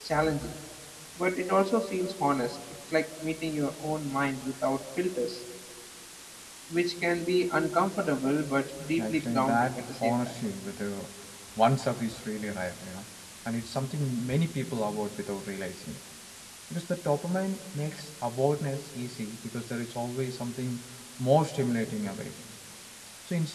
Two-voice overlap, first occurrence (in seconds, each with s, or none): 9.0 s